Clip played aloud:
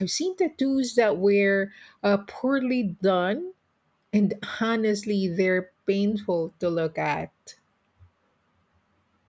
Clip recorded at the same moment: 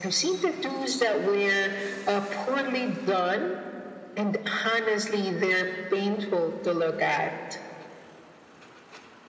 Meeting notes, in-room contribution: none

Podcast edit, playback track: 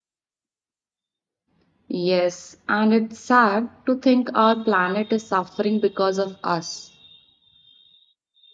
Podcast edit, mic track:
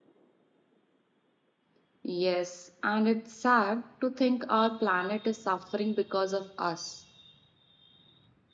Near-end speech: none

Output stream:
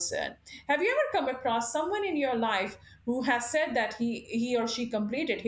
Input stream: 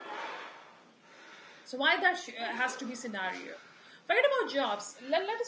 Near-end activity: present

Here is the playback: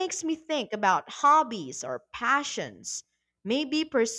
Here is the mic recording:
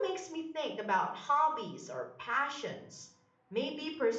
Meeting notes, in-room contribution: none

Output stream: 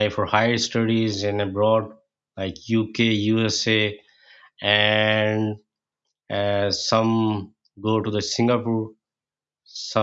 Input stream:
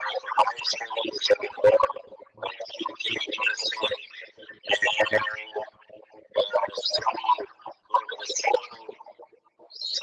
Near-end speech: none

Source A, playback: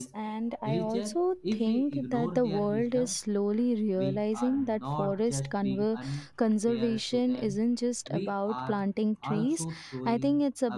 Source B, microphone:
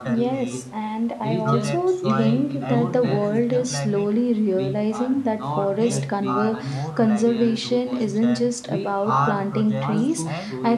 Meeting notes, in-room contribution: present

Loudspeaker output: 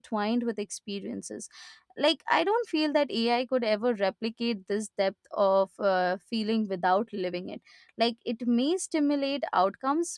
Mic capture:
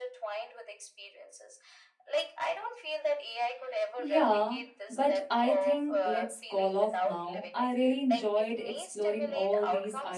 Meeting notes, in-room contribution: present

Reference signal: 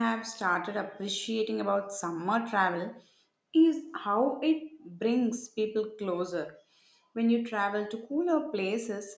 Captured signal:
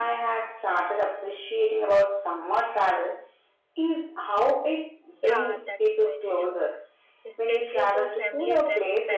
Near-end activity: present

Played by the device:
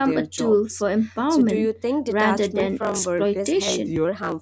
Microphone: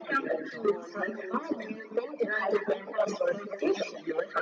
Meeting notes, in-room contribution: present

